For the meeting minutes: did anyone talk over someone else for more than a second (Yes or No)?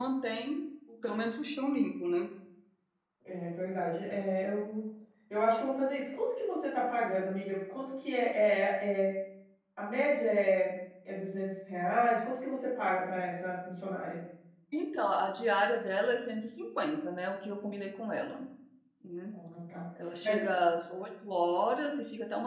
No